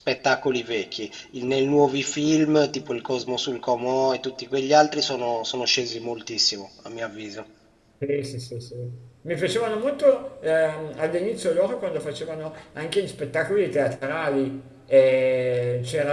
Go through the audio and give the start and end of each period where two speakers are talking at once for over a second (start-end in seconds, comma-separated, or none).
none